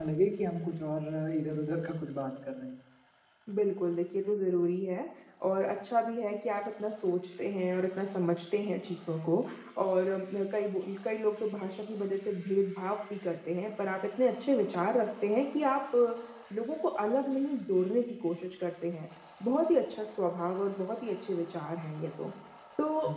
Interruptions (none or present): none